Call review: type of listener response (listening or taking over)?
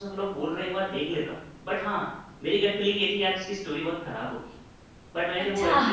listening